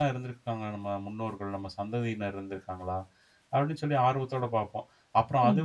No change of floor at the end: Yes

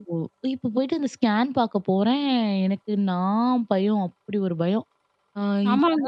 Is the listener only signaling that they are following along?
No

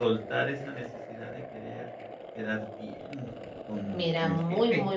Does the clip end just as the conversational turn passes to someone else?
Yes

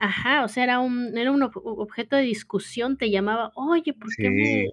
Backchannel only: Yes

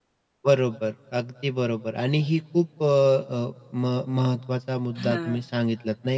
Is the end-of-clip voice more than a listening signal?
No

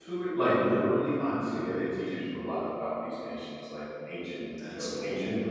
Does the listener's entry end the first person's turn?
No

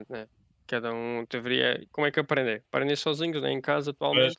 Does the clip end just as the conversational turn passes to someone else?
No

